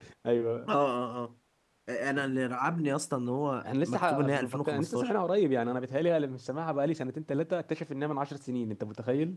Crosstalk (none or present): present